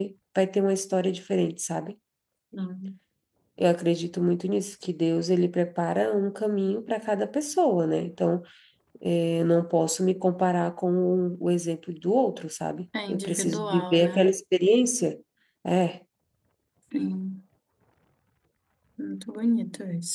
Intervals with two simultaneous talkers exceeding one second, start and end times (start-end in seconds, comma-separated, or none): 13.1-14.3